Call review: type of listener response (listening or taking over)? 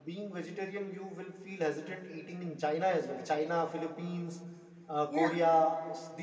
listening